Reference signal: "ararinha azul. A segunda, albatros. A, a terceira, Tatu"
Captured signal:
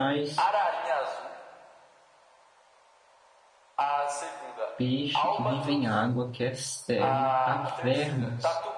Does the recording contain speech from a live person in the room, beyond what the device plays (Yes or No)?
Yes